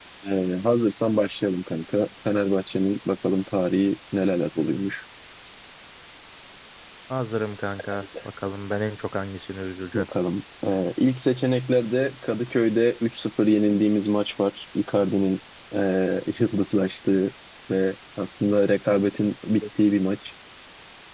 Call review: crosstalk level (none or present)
none